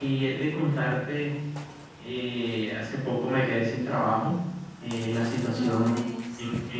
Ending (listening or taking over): listening